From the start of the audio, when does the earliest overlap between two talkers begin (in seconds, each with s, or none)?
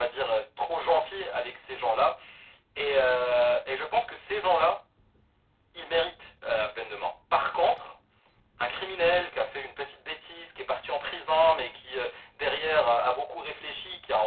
none